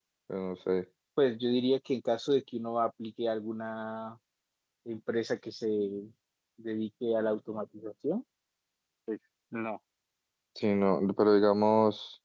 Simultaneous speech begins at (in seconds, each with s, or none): none